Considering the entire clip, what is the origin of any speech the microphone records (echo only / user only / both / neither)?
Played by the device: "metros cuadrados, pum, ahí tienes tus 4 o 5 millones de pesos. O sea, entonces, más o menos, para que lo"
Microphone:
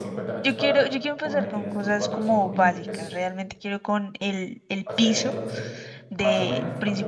both